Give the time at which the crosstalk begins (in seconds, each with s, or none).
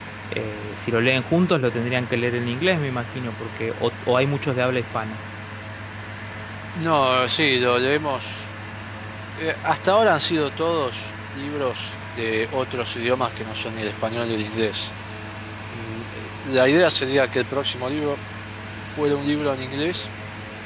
none